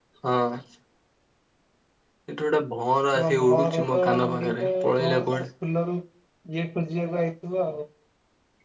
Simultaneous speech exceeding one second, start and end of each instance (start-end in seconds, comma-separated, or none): 3.2-5.4